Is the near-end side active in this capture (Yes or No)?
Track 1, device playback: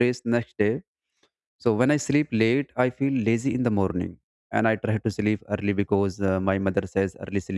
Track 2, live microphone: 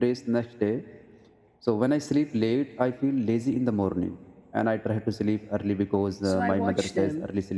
Yes